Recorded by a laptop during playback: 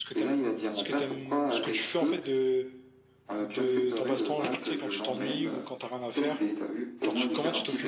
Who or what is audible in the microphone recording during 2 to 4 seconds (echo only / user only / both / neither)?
both